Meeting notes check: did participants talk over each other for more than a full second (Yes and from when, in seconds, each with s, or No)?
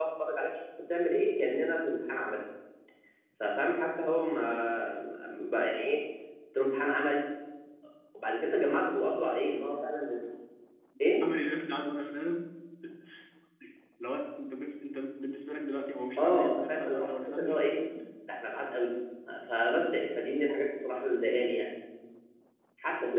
Yes, from 16.2 s